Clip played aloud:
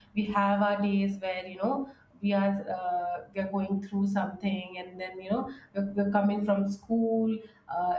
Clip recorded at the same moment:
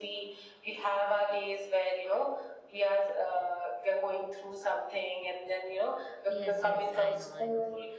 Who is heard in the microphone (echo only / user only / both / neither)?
both